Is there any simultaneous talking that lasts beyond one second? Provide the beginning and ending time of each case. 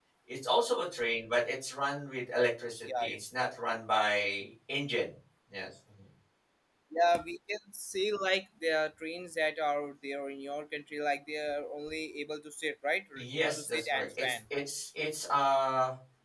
13.2-14.4

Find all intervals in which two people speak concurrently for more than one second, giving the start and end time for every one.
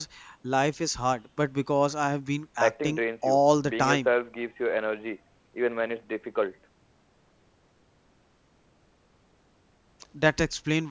2.6-4.1

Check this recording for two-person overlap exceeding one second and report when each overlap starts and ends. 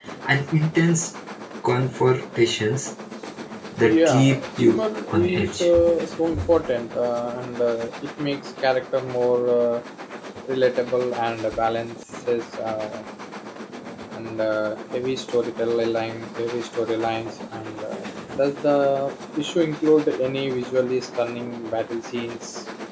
3.8-5.7

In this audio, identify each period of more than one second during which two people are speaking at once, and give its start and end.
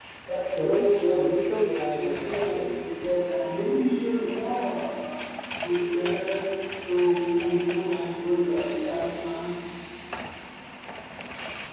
0.6-2.9

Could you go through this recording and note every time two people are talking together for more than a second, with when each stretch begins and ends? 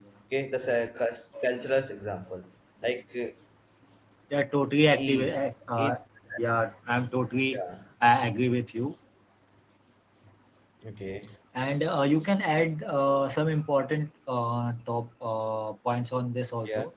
none

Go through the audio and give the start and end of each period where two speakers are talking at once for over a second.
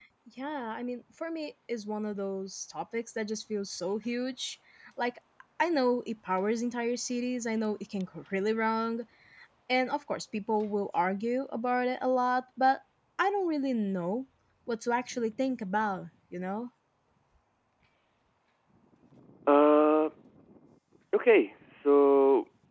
none

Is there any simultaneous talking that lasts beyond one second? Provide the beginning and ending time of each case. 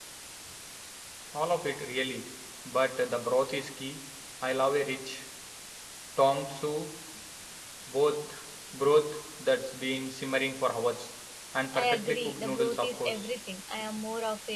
11.7-13.3

